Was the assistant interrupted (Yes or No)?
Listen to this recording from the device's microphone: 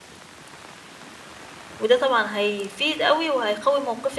Yes